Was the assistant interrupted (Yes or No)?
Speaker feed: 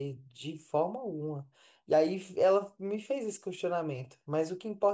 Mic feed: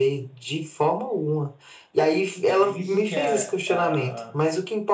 Yes